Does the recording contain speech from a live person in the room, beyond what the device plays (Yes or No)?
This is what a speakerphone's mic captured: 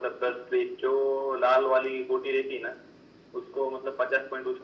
No